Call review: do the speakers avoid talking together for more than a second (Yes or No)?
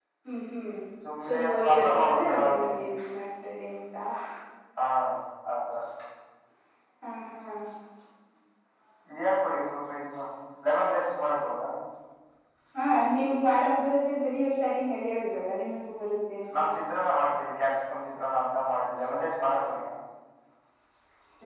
No